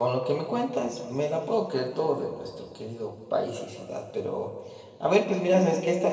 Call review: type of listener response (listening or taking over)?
listening